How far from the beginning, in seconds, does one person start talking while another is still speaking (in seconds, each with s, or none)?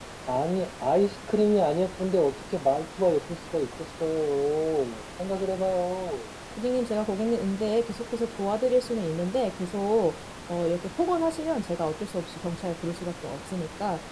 none